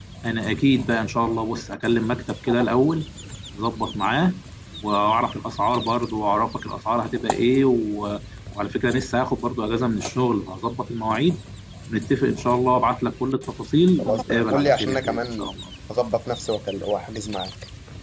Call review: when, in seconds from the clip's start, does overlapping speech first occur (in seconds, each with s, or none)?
14.0 s